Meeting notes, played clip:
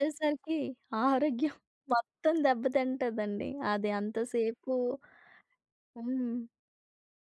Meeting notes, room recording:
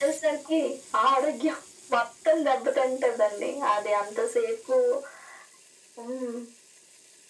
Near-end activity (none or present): none